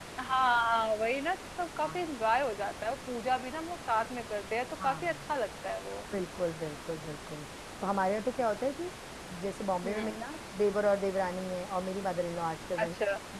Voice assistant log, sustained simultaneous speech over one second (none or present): none